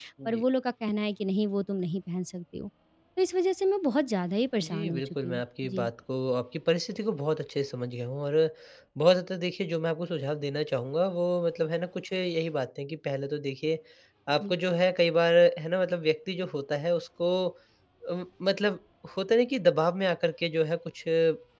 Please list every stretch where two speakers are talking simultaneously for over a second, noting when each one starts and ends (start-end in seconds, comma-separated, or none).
4.7-5.9